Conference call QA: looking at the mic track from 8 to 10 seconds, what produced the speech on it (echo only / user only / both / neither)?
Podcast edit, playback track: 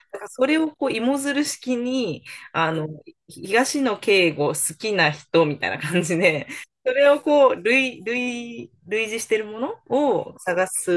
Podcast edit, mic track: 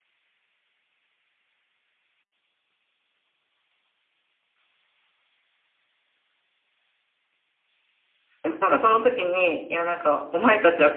user only